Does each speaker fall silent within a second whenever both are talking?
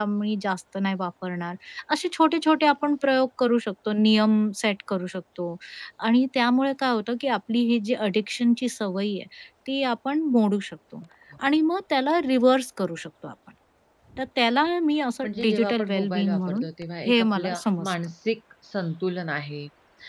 No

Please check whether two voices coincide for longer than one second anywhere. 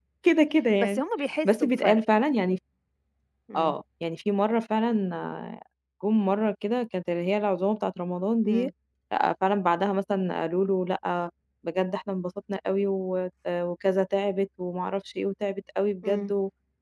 No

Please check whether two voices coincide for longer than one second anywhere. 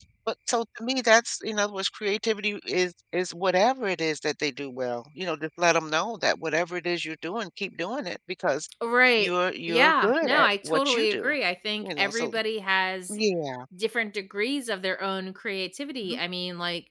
Yes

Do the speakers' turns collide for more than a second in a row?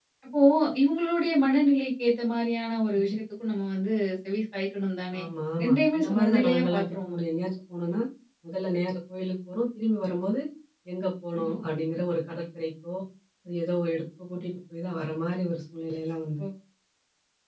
Yes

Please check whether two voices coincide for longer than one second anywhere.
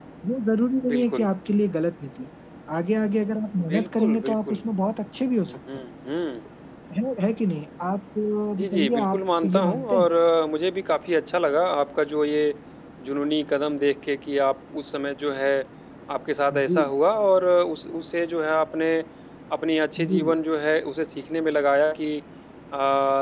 Yes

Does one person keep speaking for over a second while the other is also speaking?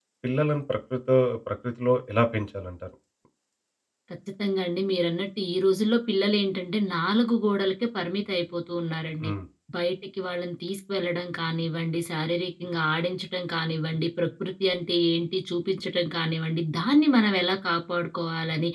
No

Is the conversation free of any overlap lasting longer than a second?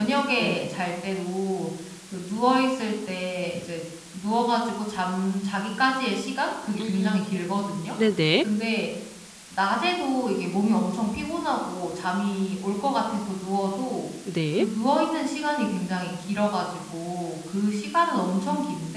Yes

